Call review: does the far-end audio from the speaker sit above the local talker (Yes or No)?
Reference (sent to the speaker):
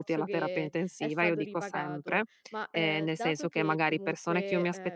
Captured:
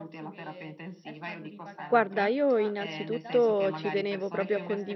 No